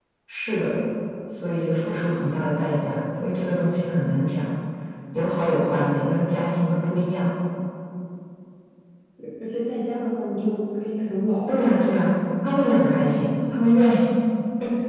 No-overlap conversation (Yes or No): Yes